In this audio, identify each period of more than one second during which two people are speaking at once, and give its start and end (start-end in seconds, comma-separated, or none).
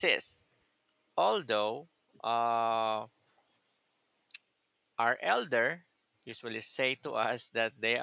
none